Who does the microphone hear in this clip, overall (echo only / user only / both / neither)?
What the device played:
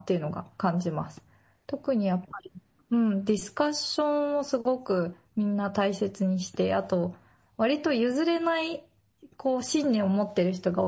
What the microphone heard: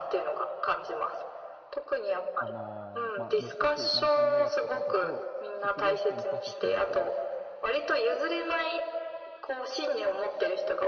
both